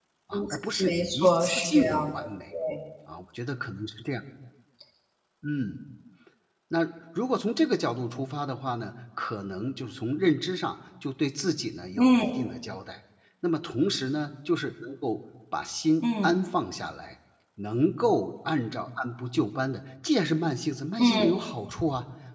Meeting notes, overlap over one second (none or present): present